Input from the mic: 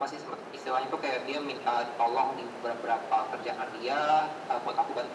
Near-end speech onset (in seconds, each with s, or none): none